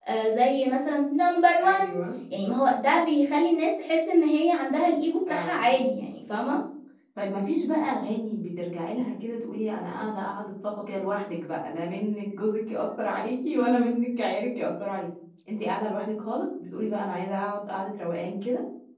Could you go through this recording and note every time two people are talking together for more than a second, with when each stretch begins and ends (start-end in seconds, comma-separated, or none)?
none